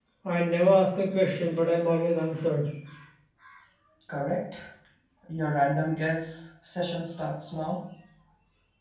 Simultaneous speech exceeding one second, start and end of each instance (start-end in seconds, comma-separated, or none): none